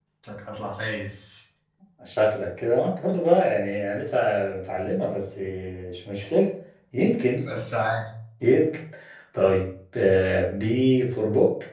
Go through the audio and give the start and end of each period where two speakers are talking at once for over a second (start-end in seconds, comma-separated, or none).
none